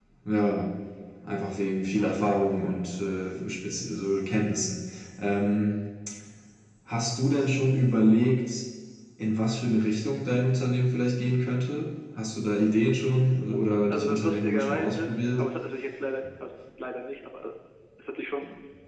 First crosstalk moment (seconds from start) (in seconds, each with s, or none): 13.9 s